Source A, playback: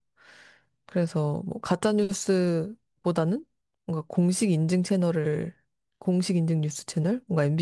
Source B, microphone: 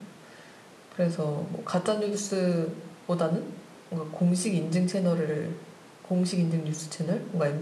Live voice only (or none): none